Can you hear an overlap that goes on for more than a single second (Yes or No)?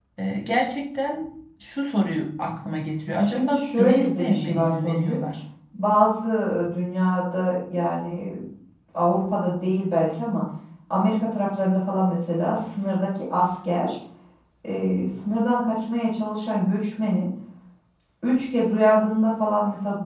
Yes